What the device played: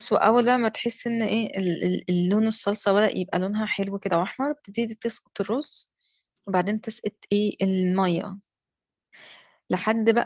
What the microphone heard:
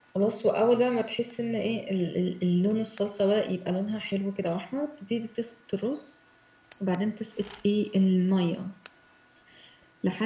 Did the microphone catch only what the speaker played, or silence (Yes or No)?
Yes